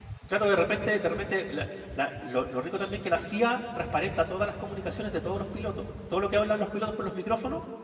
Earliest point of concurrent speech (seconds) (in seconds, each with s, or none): none